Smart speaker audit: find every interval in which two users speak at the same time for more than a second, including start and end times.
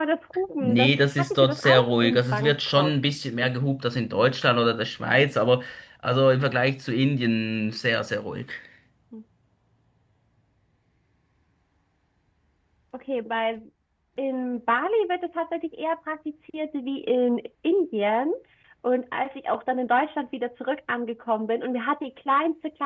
0.6-2.9

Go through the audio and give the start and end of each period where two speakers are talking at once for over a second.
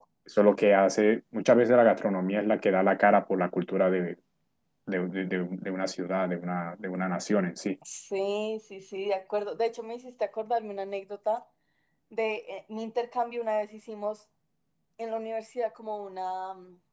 none

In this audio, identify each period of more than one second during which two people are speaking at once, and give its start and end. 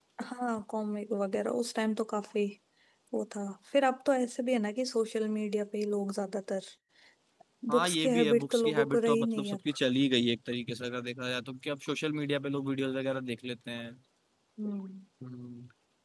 7.7-9.6

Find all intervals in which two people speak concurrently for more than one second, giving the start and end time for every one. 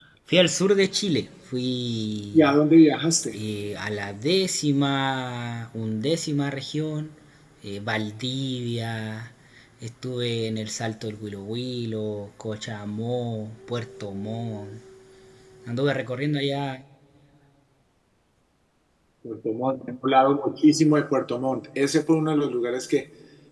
none

